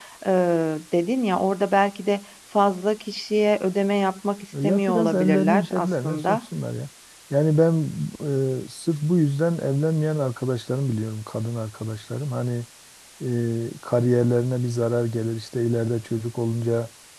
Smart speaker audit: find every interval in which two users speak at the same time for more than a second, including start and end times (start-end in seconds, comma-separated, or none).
4.6-6.4